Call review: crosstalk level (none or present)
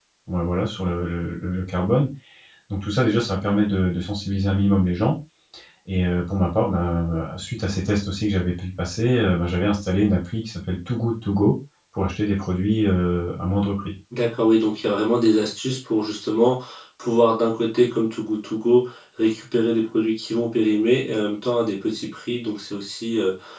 none